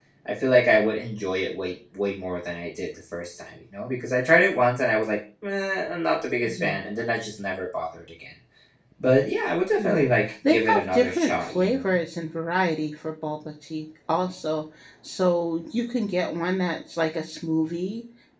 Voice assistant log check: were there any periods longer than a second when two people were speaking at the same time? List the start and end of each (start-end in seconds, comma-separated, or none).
10.4-12.0